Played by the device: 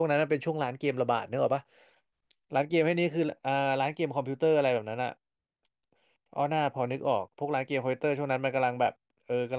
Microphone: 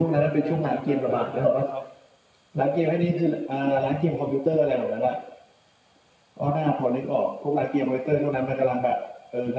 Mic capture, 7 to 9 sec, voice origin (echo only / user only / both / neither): echo only